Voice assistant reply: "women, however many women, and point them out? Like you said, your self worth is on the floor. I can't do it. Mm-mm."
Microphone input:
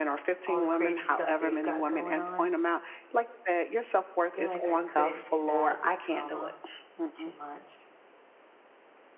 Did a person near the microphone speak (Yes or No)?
Yes